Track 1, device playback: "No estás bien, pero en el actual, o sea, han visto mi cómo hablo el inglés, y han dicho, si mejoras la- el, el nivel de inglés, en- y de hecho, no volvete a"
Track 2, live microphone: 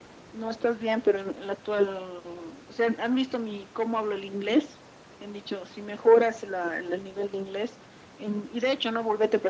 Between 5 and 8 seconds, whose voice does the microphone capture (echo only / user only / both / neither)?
echo only